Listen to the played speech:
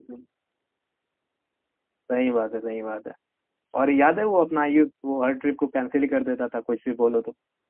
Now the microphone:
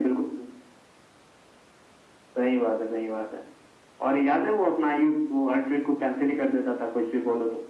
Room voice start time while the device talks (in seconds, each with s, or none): none